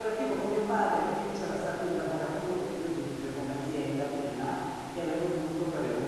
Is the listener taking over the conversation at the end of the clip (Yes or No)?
No